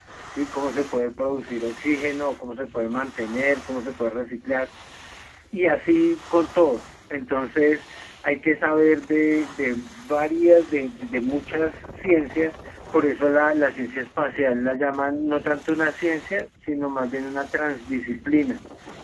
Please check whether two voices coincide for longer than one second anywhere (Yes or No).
No